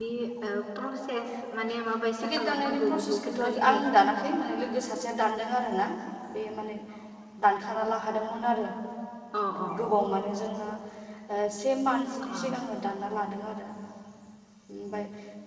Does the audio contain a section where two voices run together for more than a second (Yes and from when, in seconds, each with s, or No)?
Yes, from 2.2 s